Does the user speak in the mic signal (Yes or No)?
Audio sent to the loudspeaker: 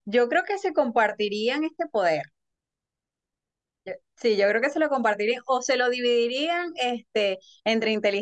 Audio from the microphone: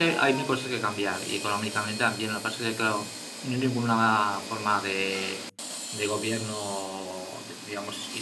Yes